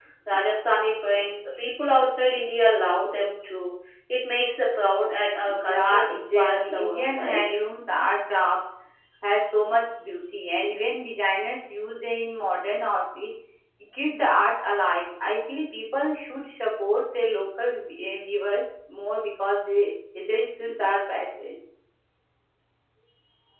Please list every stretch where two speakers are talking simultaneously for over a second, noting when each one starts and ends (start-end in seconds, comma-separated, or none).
5.5-7.4